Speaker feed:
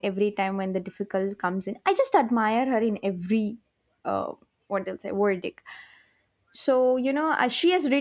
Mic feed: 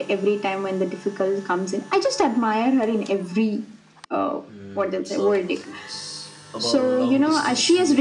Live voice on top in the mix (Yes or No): No